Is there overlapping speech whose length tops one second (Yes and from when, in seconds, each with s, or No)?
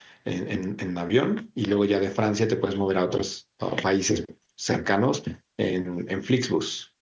No